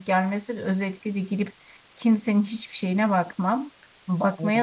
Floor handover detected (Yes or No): No